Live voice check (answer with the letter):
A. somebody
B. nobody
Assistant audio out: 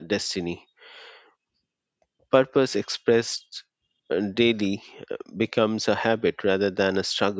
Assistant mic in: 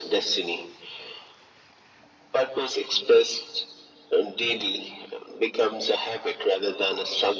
B